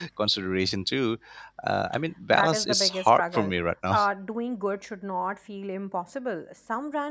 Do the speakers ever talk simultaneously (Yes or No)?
Yes